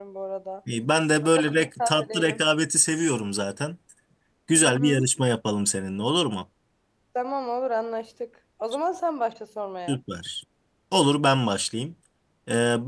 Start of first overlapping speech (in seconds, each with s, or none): 1.2 s